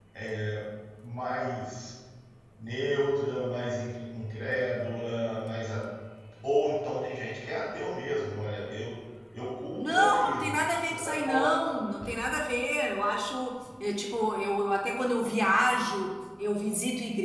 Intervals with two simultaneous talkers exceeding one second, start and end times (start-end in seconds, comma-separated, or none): 9.8-11.5